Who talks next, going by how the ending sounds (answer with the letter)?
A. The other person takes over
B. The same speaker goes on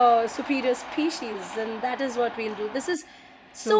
A